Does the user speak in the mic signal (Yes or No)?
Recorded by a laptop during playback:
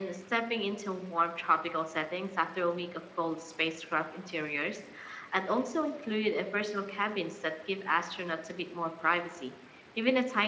No